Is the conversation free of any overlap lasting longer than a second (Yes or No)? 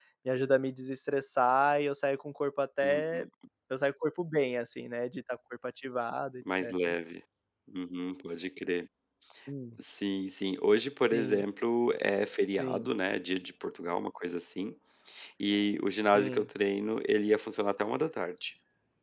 Yes